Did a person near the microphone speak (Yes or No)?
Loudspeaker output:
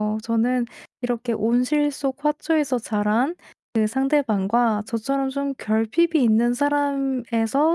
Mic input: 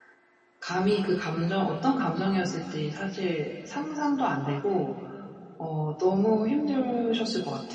Yes